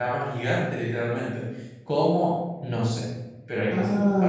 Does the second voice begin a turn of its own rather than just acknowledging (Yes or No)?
Yes